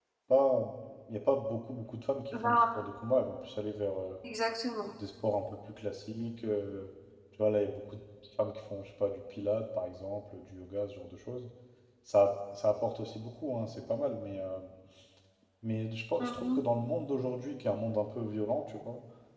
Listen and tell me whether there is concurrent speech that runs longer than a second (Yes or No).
No